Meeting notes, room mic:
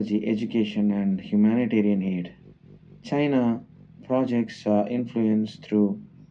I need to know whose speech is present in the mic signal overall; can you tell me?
echo only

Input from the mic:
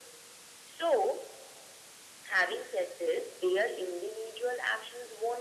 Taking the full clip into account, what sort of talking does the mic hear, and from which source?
echo only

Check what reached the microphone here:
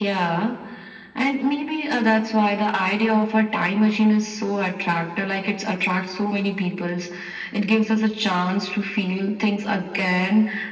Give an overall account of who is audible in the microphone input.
echo only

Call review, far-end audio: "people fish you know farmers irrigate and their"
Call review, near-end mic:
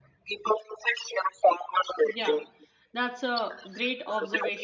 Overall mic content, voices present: both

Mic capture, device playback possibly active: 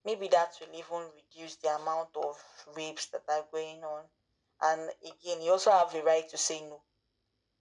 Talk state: echo only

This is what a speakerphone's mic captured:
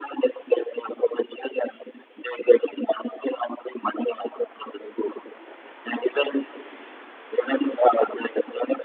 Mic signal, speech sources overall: echo only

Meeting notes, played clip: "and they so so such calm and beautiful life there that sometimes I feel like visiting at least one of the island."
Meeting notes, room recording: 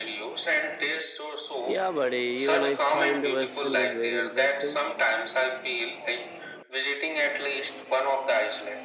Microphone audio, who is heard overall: both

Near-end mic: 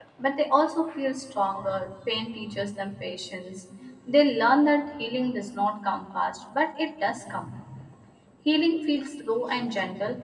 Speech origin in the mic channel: user only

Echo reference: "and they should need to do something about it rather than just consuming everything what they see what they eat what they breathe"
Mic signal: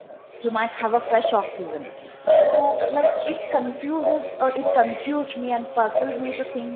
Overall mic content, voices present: both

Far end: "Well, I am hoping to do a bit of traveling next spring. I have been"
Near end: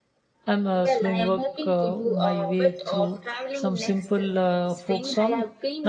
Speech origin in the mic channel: both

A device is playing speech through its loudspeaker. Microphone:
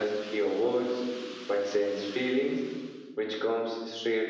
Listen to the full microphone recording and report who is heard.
echo only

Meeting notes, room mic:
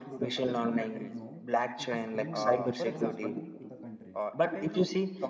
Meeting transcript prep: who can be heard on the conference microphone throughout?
both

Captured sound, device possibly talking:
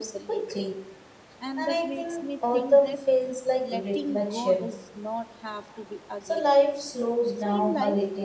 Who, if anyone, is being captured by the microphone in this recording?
both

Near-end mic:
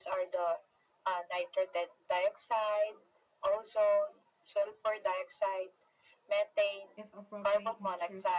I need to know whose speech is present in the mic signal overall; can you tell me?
both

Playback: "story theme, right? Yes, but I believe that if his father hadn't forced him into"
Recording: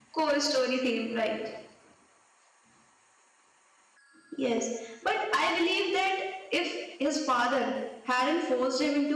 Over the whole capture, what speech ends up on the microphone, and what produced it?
echo only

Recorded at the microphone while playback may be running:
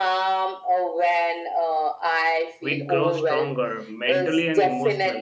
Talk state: both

